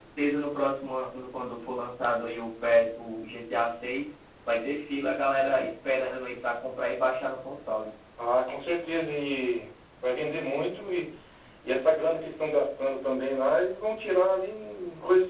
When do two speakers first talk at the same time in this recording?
none

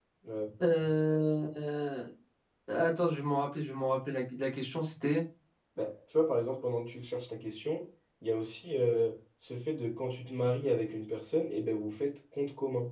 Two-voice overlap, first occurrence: none

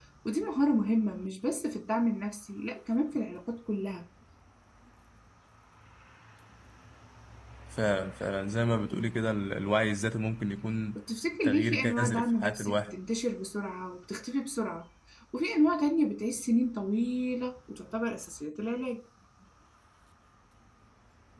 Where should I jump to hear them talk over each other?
11.4 s

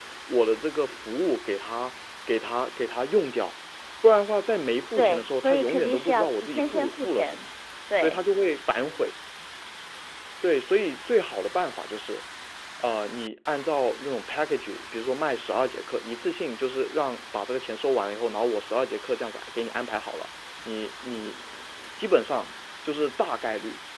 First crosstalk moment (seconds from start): 5.0 s

